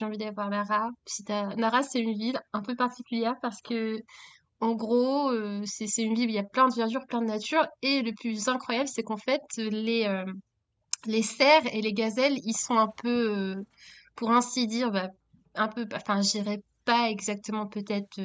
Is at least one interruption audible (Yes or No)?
No